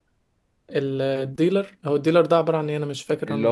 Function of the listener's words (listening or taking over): taking over